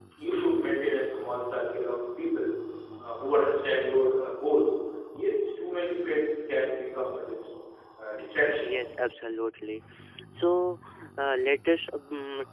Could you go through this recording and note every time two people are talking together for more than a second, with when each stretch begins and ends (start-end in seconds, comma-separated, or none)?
none